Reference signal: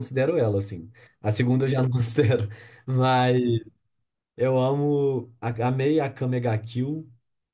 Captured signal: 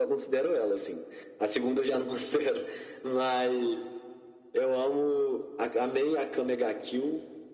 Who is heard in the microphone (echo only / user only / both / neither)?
echo only